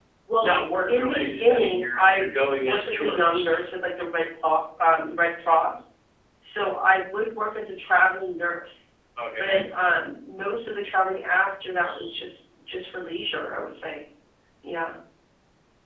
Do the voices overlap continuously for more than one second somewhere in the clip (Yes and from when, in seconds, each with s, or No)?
Yes, from 0.9 s